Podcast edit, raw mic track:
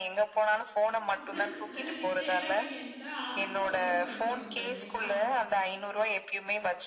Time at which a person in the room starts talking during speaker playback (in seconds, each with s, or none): 1.2 s